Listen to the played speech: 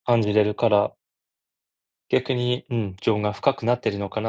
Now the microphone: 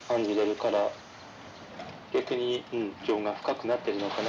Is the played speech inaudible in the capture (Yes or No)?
No